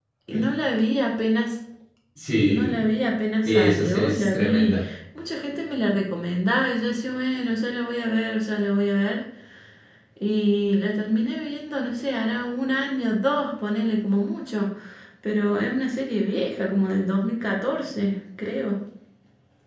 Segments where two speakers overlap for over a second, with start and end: 3.4-4.7

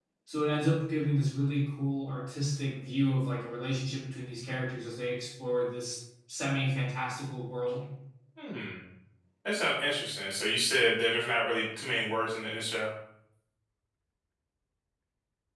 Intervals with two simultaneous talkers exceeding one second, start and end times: none

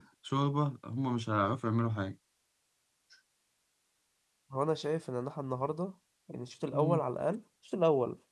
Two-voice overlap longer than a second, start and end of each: none

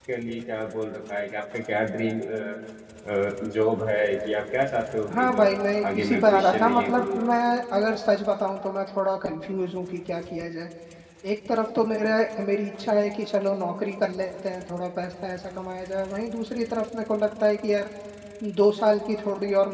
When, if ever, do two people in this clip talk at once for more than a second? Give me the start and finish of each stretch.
5.1-7.2

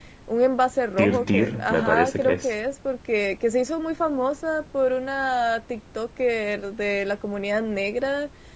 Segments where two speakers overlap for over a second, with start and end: 1.0-2.5

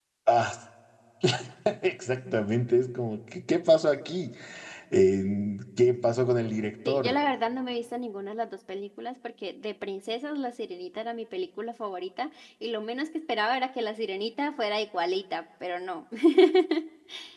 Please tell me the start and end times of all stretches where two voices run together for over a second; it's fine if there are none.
none

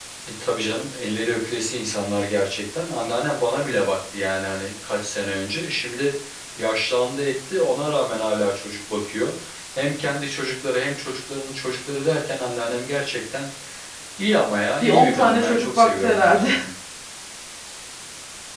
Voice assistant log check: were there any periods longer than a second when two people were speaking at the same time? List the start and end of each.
14.8-16.5

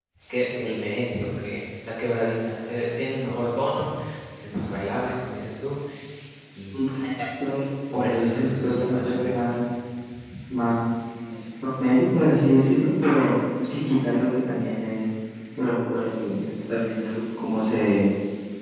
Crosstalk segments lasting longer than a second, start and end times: 7.9-9.6

